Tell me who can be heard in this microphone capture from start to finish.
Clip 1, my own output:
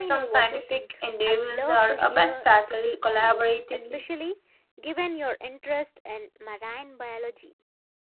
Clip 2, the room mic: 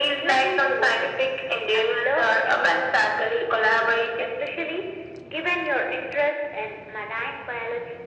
echo only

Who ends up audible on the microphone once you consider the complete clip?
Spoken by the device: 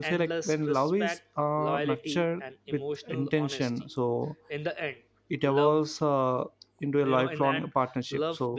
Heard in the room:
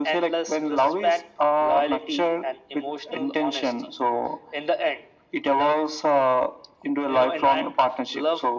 echo only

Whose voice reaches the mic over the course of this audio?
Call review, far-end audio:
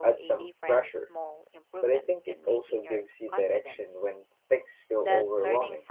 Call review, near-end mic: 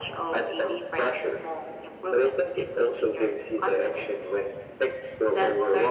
echo only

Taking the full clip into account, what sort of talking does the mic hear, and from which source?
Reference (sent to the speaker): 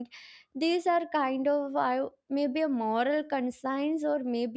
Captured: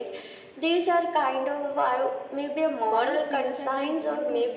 both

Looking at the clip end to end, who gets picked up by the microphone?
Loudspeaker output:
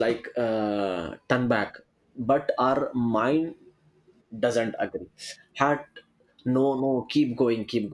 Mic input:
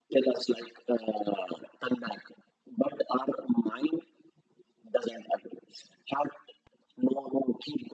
echo only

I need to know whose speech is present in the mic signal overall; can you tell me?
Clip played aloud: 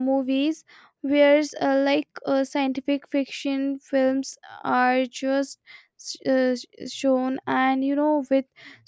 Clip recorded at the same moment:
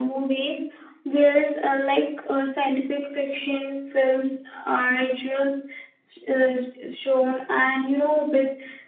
echo only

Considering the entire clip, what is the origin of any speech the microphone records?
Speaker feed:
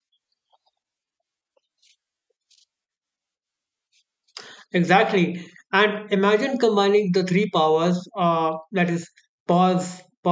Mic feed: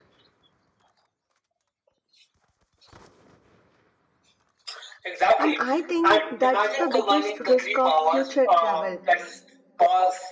both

